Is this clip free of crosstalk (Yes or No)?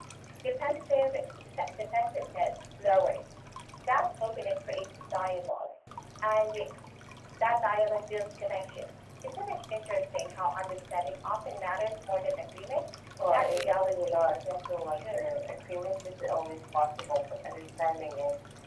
No